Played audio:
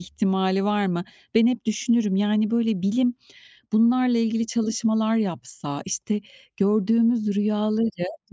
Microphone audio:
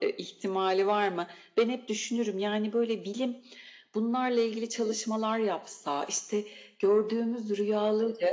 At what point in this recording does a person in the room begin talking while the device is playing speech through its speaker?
none

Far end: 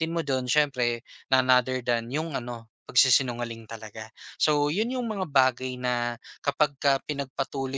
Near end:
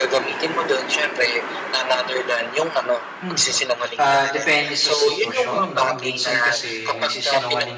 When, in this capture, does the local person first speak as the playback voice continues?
3.2 s

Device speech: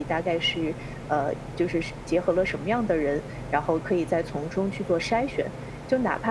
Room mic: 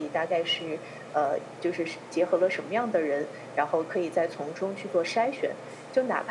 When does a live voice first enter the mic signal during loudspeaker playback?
none

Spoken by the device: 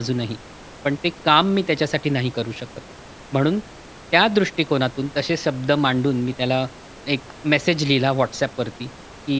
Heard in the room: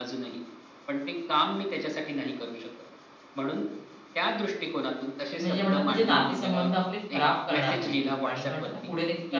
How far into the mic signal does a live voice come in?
5.3 s

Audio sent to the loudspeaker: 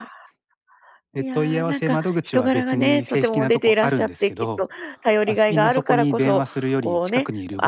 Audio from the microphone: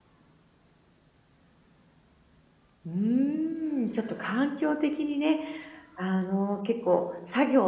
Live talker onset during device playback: 2.8 s

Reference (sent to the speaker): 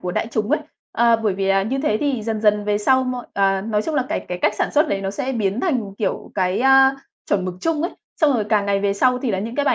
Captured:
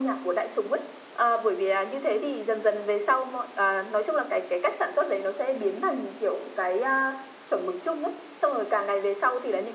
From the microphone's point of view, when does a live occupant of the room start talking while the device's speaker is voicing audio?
none

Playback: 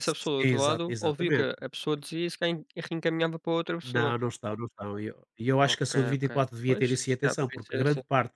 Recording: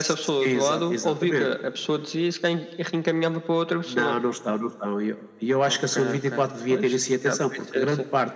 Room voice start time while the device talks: none

